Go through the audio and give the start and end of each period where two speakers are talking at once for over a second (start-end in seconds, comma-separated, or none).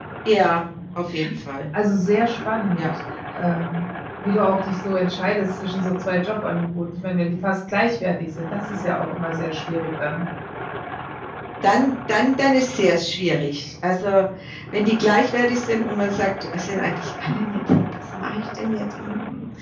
none